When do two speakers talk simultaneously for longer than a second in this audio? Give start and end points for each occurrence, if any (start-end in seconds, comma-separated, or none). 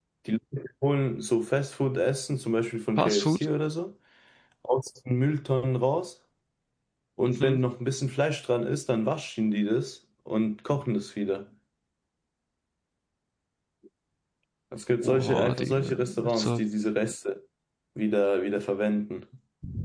15.0-16.6